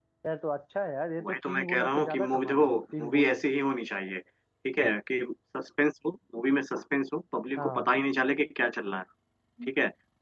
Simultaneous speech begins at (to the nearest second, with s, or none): 1 s